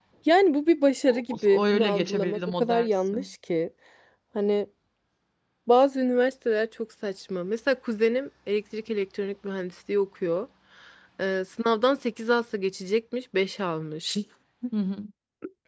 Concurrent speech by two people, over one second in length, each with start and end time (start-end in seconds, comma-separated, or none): 1.1-3.1